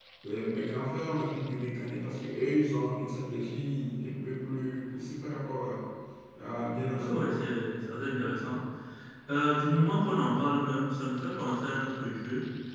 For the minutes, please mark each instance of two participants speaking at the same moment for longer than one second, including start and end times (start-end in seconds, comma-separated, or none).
none